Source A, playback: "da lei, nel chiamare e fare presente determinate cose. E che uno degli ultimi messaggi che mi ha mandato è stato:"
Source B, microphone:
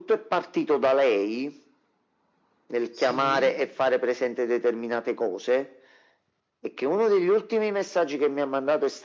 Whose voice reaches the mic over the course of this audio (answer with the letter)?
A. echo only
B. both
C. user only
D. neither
B